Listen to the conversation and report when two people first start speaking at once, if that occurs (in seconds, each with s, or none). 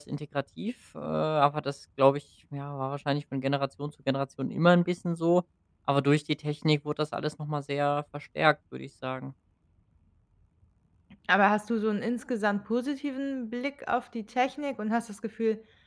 none